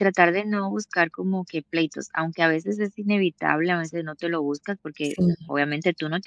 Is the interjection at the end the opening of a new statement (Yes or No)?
No